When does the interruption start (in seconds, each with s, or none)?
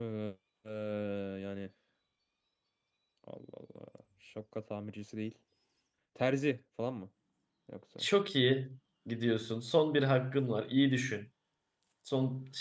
none